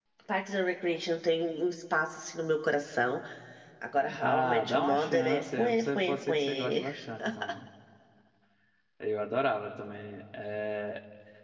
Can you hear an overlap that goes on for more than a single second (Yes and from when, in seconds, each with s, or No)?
Yes, from 4.2 s